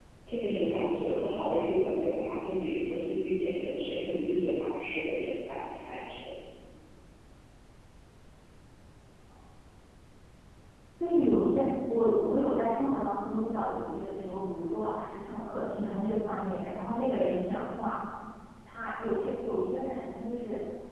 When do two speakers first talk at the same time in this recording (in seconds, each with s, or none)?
none